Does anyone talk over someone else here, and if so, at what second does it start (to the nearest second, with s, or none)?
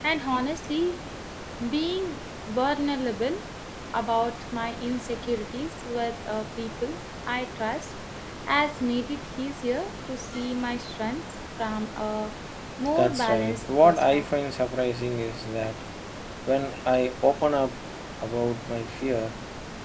13 s